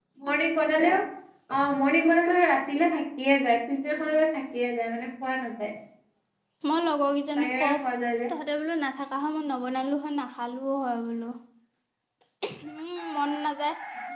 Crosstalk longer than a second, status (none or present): none